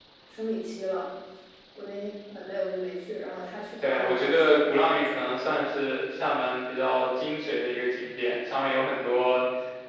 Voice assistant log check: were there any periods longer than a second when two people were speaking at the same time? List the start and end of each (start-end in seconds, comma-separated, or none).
3.8-5.2